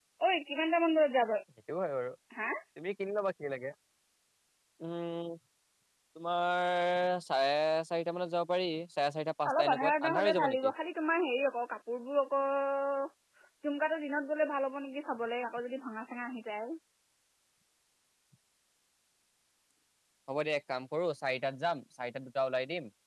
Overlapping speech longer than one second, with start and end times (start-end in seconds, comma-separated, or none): 9.5-10.7